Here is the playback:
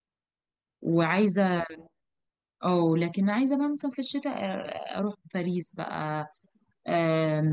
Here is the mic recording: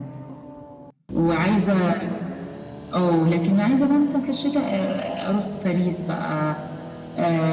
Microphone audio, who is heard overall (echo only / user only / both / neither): echo only